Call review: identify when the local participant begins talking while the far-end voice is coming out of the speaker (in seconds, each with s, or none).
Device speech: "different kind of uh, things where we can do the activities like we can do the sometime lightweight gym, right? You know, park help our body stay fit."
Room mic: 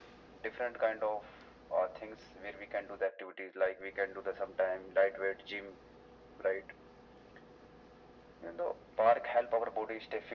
none